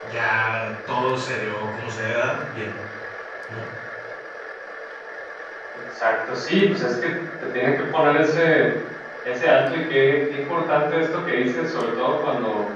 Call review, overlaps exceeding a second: none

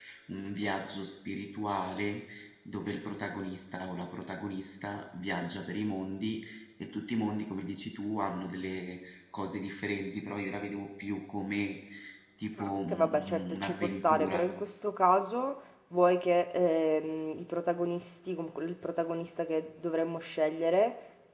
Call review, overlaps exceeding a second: present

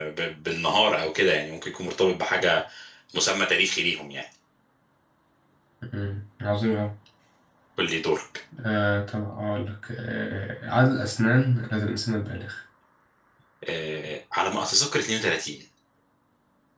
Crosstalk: none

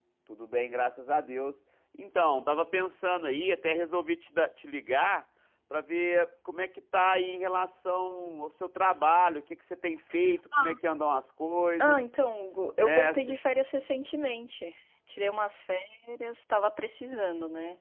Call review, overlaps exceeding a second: none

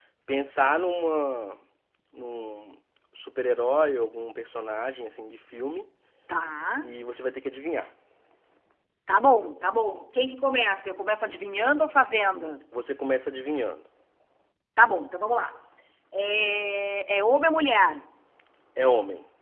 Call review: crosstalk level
none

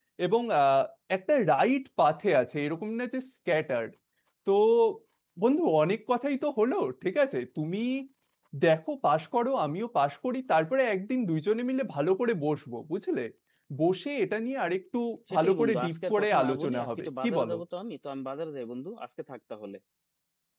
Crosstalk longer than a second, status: present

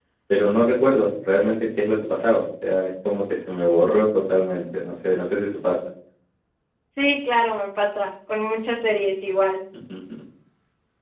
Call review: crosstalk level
none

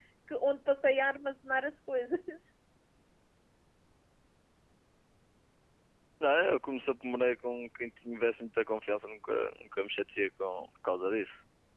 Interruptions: none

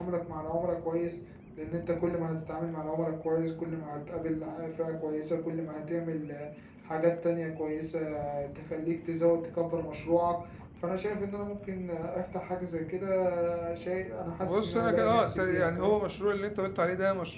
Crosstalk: present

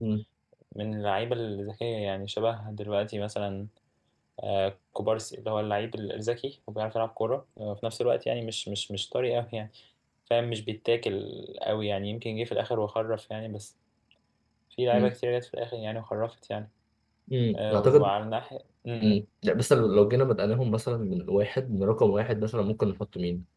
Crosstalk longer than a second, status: none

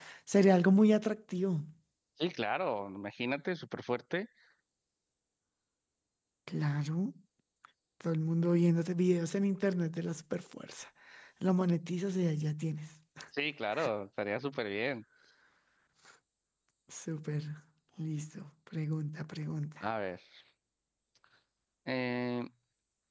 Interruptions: none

